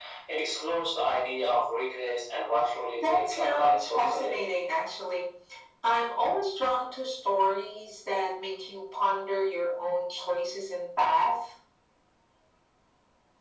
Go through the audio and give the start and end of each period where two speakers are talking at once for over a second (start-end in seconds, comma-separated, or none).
3.0-4.4